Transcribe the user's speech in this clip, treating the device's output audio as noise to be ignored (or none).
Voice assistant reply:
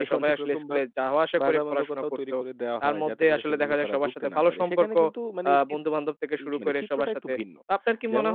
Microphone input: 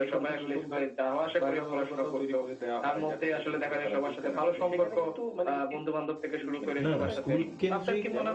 না, না স্কুল কেন্দ্রিক